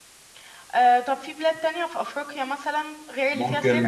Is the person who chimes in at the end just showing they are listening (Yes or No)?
No